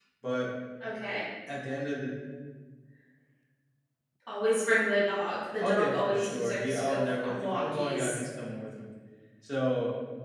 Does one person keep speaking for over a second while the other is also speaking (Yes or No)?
Yes